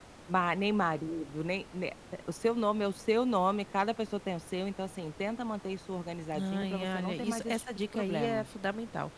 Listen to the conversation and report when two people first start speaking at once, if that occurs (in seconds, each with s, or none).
6.3 s